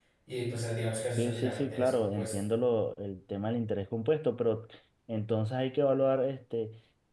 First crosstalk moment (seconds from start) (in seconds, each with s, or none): 1.2 s